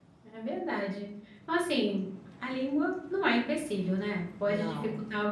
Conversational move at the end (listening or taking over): listening